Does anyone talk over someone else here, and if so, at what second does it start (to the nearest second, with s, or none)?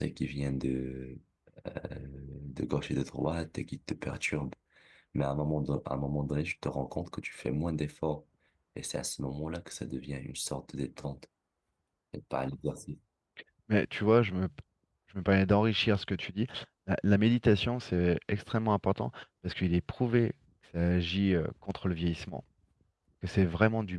none